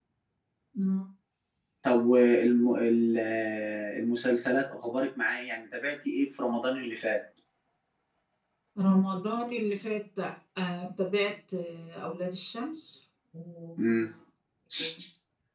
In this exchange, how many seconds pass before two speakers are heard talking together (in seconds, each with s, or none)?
none